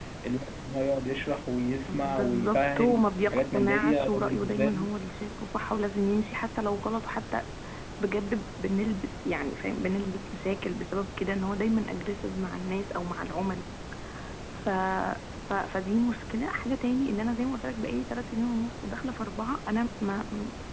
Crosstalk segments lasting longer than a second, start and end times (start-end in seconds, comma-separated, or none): 1.9-4.9